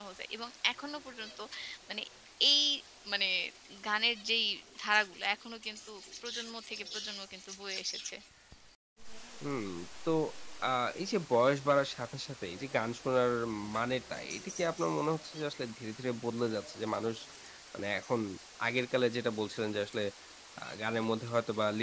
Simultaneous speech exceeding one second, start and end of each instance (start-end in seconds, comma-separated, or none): none